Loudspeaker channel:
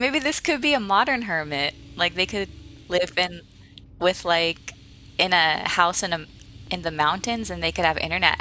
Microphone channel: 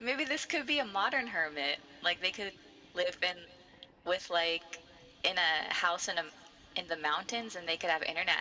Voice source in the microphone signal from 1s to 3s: echo only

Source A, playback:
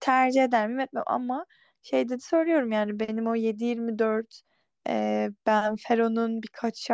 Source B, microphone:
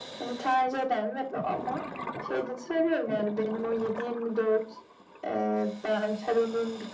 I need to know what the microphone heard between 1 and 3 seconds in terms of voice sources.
echo only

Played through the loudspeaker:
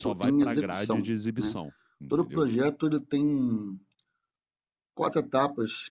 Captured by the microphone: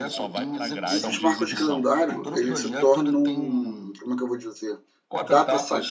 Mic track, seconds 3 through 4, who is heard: both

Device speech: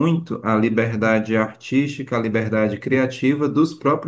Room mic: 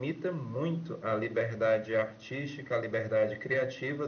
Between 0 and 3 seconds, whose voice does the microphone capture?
echo only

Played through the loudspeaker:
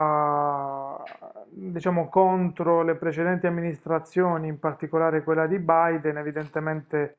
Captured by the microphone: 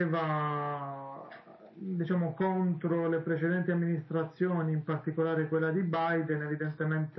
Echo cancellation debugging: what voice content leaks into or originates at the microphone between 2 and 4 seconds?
echo only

